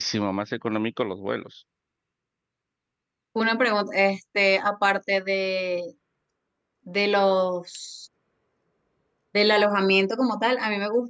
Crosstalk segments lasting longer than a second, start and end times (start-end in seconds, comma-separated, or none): none